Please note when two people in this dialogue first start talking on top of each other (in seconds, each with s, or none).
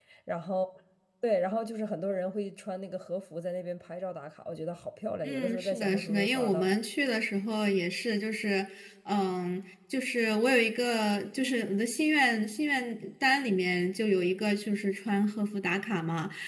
5.2 s